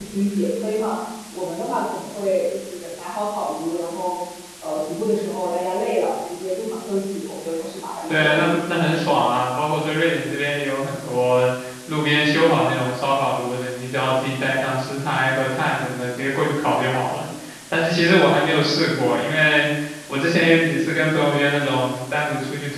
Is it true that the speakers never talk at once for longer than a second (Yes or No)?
Yes